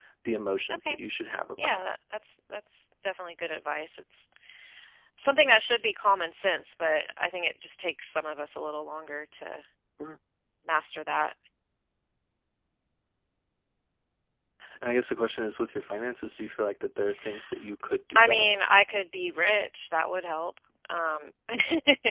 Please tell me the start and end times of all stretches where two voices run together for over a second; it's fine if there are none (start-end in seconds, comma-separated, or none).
none